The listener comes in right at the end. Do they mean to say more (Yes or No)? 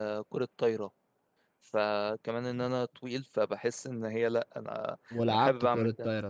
Yes